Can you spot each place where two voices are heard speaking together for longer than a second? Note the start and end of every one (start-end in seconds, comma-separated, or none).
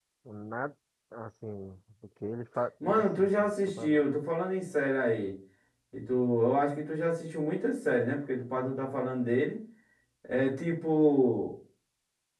2.8-4.0